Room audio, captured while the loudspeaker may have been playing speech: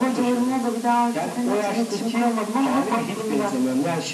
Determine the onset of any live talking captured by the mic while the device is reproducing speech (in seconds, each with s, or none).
none